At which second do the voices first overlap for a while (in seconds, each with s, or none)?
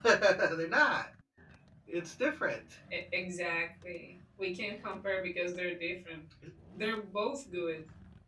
none